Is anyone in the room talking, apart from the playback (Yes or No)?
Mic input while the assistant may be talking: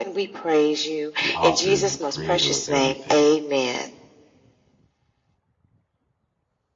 Yes